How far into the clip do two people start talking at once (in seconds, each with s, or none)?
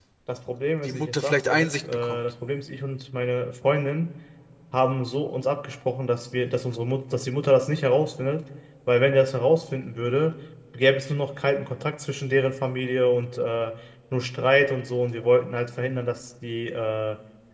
0.8 s